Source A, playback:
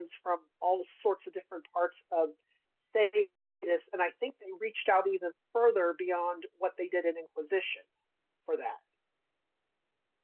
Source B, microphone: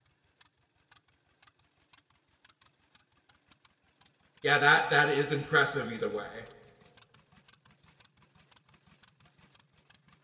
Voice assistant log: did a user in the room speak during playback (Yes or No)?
Yes